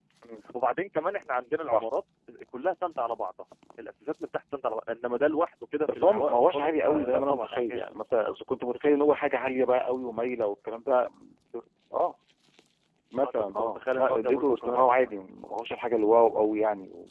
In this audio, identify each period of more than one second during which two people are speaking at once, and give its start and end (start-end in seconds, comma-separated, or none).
5.9-7.8, 13.2-15.1